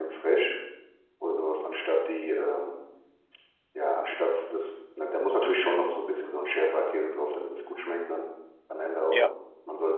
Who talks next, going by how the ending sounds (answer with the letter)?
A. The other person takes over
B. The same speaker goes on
B